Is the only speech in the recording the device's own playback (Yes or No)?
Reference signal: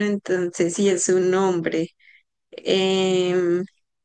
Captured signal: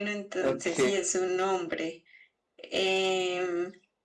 No